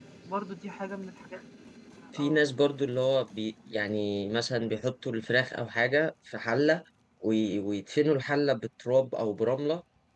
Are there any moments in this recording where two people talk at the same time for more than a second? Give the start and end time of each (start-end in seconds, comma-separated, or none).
none